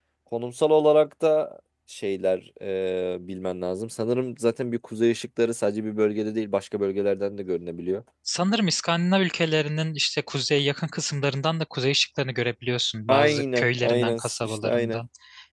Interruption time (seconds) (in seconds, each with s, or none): 13.1 s